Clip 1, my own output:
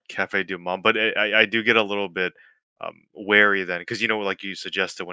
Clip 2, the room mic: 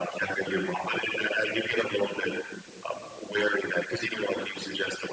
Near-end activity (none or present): none